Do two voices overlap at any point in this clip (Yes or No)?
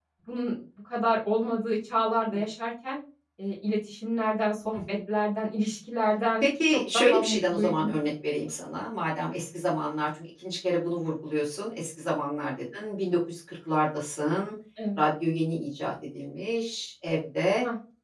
Yes